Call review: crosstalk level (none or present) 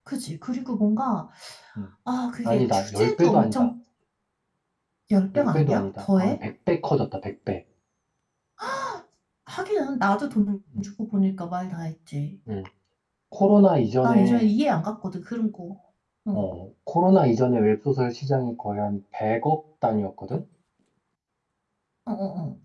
present